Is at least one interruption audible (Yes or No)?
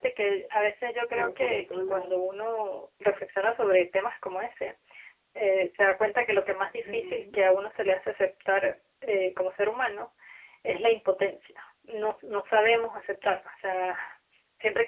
Yes